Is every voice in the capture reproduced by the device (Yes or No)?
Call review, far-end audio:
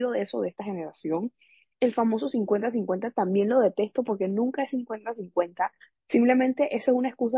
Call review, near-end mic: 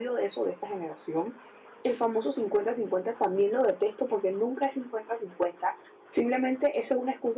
Yes